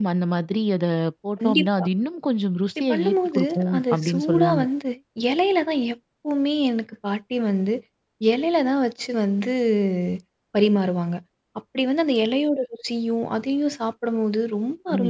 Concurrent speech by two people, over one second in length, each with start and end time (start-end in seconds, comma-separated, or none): 2.8-4.6